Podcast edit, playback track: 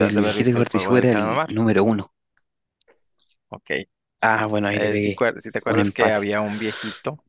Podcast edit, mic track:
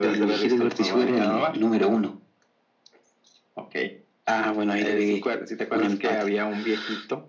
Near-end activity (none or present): none